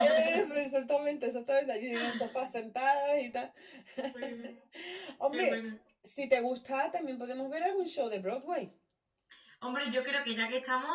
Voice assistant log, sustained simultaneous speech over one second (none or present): none